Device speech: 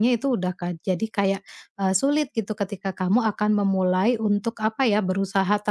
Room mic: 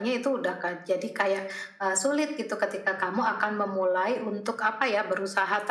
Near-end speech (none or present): none